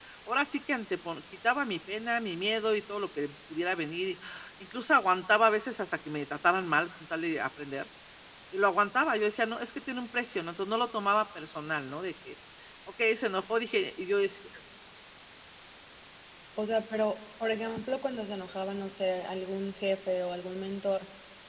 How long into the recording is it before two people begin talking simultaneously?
none

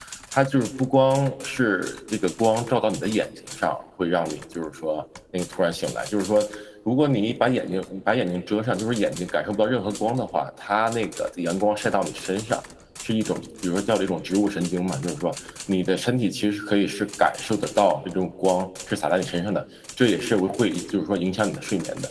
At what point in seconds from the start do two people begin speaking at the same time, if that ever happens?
none

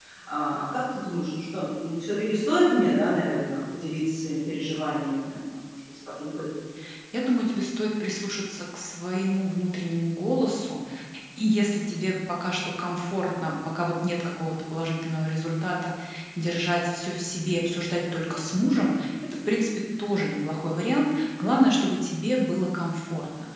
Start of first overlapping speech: none

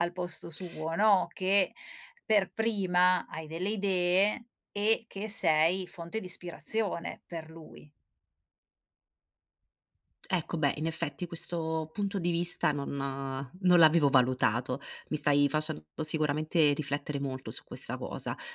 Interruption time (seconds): none

